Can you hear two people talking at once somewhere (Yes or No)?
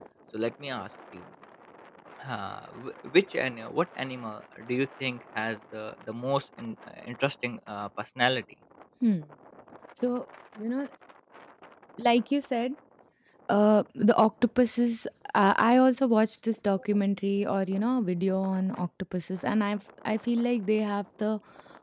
No